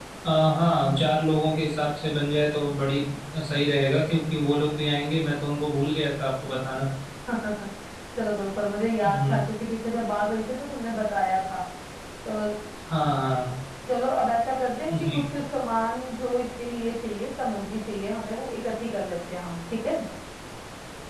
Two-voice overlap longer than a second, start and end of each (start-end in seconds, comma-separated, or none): none